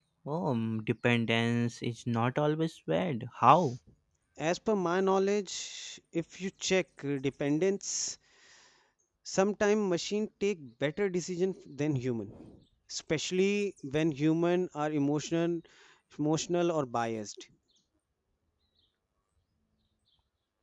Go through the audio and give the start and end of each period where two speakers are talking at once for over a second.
none

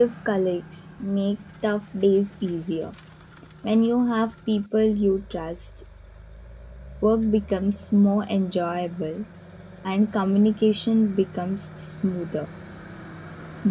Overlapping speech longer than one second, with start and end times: none

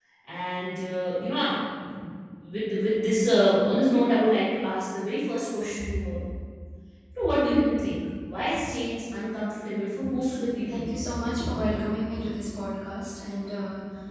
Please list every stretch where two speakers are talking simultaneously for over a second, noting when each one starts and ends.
none

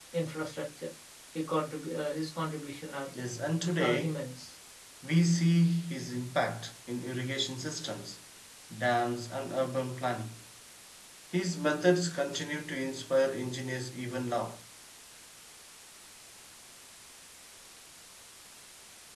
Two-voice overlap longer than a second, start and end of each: none

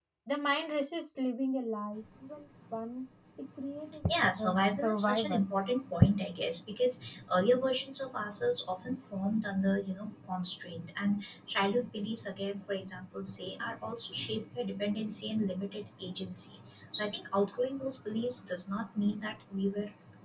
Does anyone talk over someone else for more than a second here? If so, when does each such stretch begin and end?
4.1-5.5

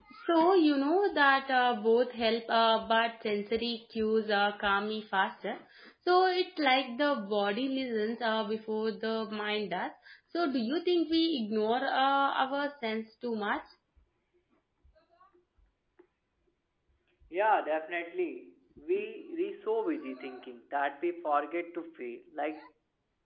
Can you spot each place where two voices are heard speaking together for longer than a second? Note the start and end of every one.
none

